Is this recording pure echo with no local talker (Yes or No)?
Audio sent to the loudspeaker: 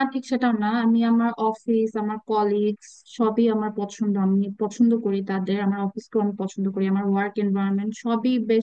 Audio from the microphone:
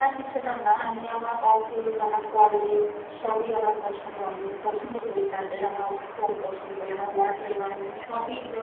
Yes